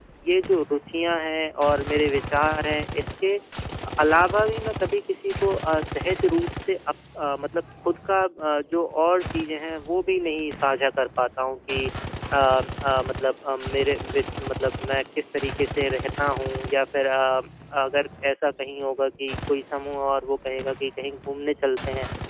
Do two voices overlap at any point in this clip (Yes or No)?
No